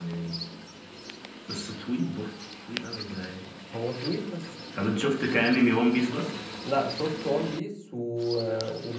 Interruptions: none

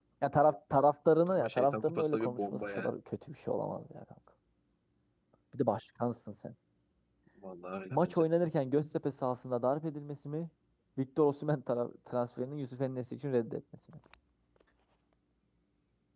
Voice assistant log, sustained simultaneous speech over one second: present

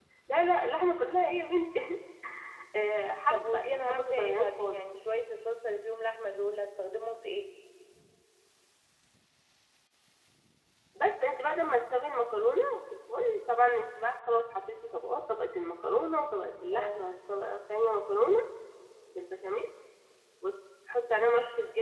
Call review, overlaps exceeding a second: present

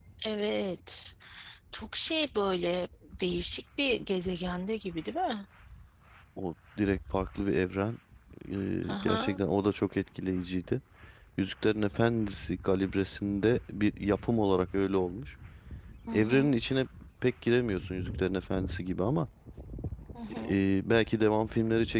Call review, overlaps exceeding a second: none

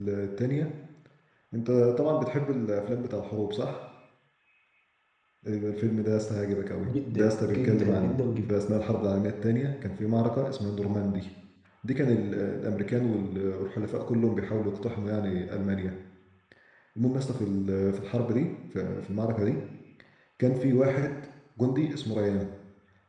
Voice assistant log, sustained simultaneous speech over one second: present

